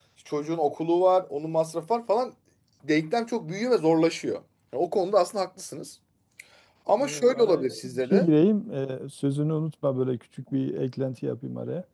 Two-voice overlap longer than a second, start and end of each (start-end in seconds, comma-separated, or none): 7.0-8.3